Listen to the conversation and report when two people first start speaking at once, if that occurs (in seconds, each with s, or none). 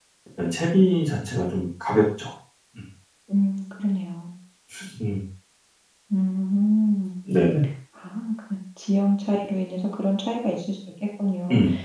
none